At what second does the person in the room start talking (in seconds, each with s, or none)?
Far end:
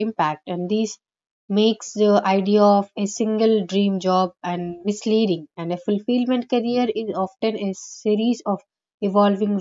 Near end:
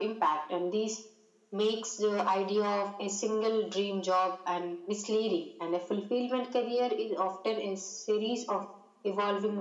none